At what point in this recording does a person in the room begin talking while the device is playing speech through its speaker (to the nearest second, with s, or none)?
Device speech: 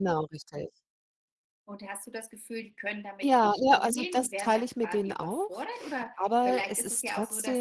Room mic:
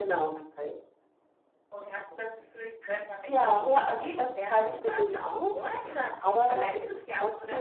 none